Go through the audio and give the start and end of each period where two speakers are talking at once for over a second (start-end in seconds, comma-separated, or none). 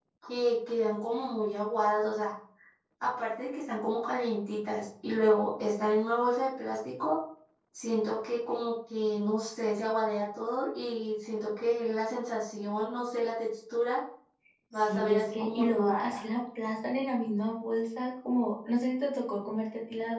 14.8-16.2